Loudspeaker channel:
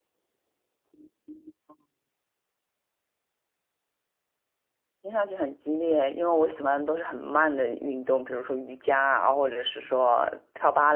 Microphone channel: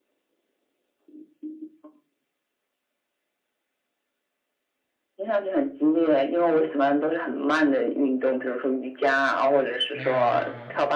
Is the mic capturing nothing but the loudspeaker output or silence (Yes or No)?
No